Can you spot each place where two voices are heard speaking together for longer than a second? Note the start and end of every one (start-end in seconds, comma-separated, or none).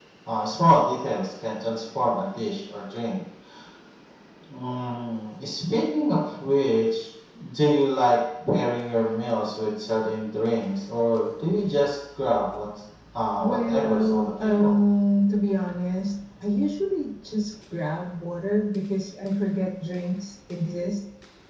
13.4-14.8